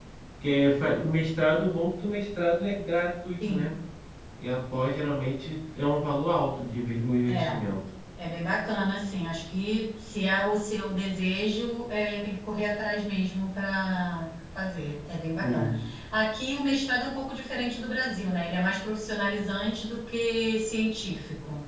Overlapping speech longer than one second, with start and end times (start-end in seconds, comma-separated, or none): none